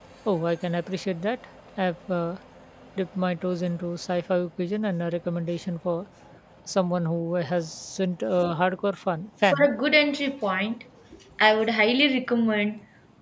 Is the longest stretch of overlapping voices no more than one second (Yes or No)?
Yes